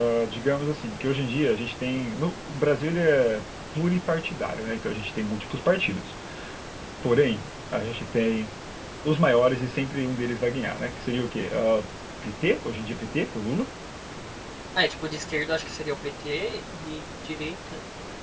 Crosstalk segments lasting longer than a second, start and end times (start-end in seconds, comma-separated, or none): none